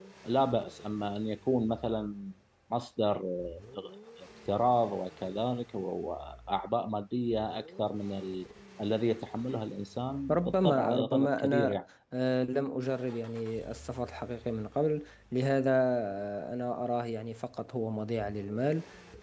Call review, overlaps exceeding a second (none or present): present